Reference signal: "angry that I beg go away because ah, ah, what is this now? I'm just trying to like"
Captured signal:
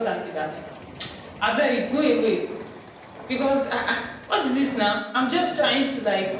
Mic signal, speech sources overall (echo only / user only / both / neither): echo only